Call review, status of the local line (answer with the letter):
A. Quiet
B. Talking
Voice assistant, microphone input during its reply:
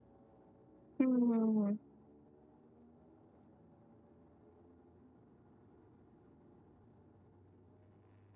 B